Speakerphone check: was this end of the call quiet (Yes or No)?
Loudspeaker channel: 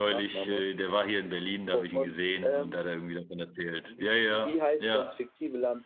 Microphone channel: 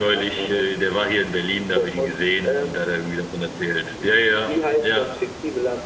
Yes